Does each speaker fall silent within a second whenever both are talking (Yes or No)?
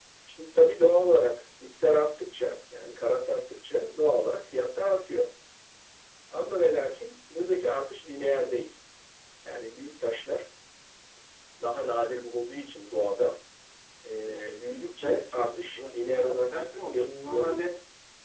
No